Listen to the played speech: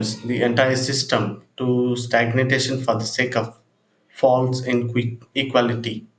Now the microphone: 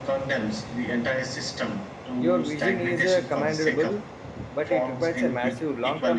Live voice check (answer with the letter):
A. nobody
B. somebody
B